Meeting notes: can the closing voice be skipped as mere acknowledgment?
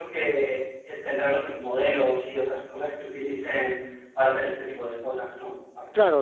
No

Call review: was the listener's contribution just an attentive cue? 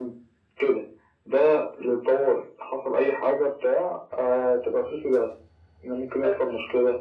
Yes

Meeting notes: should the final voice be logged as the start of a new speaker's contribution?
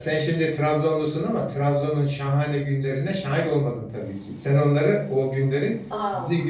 No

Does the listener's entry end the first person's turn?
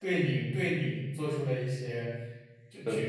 No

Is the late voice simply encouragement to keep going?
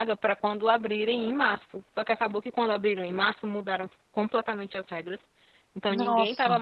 Yes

